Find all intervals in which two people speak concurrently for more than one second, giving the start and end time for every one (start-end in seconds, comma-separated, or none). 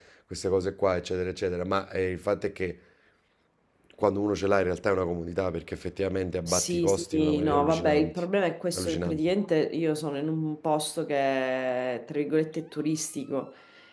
6.4-8.2